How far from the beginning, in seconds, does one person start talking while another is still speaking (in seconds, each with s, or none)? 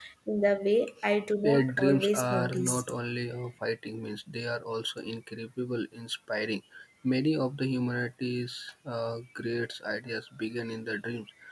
1.4 s